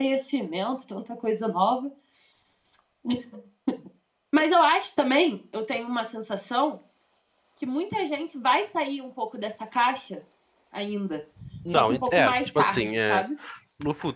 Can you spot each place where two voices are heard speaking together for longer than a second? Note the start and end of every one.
11.7-13.2

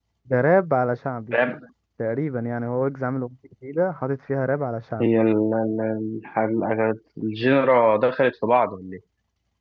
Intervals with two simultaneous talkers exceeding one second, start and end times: none

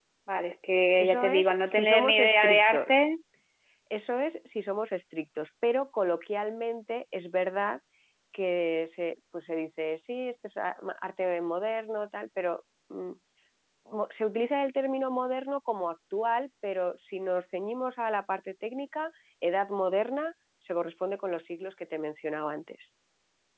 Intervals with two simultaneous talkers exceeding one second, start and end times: 1.0-2.9

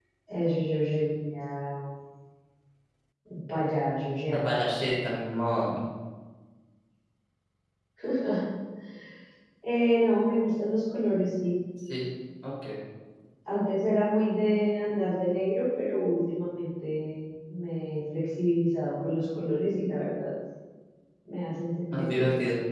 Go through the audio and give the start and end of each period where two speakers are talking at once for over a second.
none

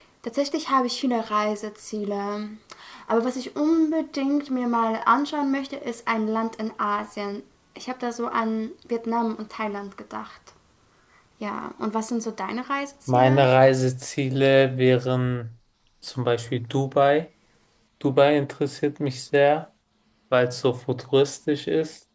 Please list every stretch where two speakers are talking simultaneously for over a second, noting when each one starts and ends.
none

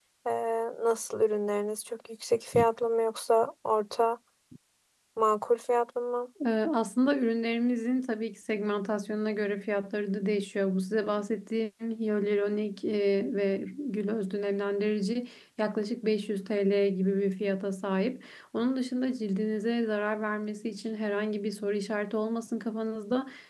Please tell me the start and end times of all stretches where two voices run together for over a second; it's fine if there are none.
none

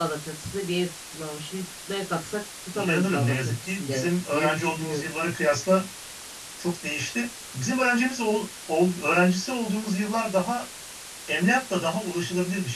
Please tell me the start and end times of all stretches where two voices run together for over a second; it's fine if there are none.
2.8-5.1

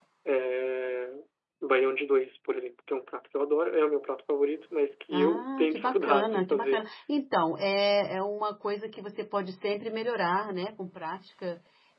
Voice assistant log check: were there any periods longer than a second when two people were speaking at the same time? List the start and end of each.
5.1-6.9

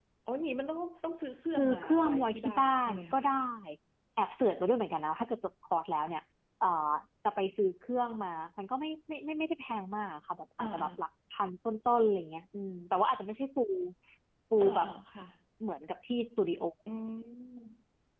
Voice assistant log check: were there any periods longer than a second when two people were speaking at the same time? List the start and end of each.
1.6-3.2

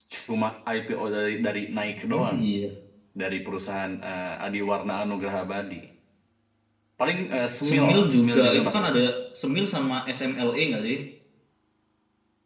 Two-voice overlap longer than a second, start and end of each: 7.7-8.9

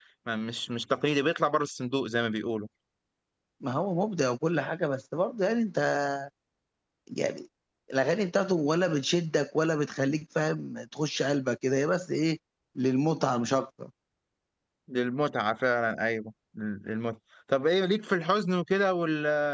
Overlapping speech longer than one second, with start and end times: none

